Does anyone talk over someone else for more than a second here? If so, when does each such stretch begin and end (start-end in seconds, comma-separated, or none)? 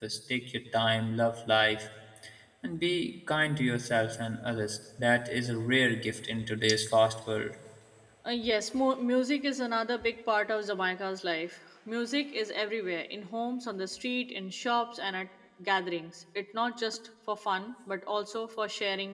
none